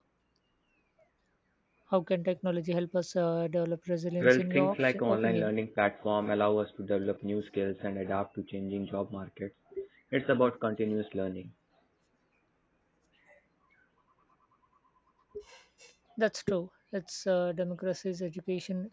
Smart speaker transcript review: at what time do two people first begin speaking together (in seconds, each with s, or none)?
4.2 s